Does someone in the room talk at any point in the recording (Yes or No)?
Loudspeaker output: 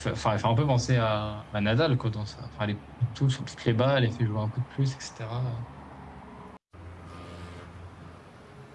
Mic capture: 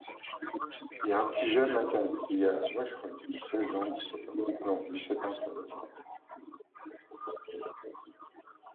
Yes